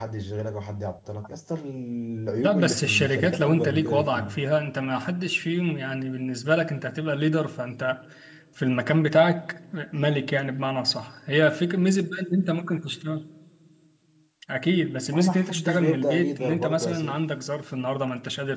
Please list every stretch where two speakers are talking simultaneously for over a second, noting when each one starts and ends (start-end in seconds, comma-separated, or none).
2.4-4.4, 15.1-17.2